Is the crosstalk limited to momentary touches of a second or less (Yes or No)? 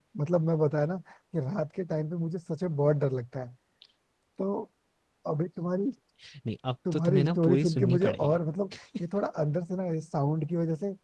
No